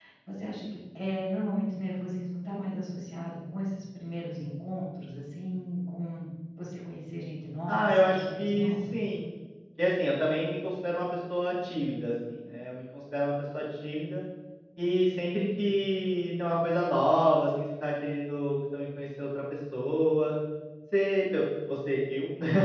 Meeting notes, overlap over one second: present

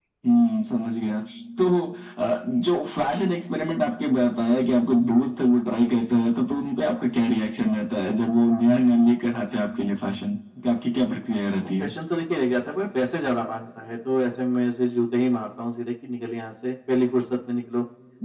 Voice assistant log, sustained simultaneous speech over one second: none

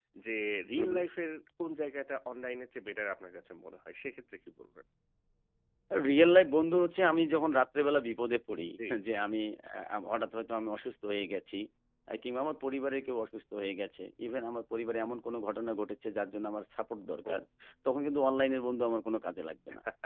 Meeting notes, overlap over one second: none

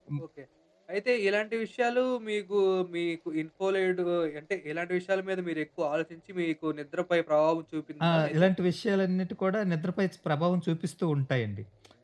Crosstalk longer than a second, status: none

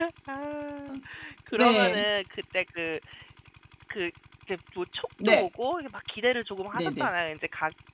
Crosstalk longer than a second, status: none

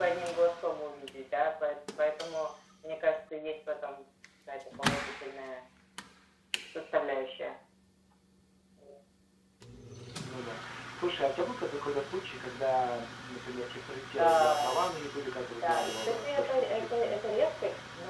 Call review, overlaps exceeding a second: present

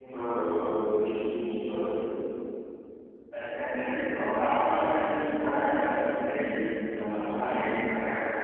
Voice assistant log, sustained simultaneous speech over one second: none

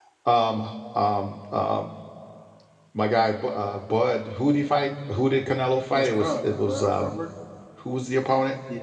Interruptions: present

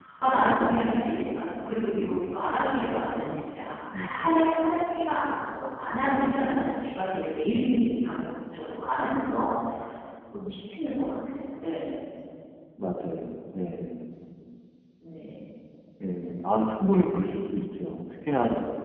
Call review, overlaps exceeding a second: none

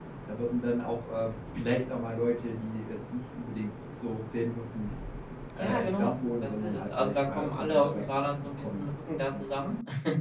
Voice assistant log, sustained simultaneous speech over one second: present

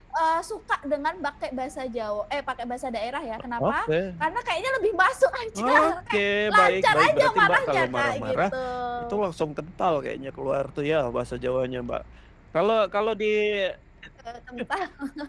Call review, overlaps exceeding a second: present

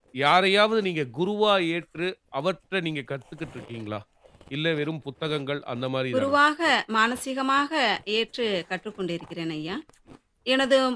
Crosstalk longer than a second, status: none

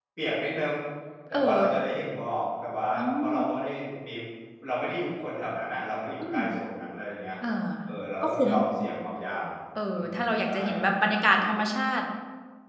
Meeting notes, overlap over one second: present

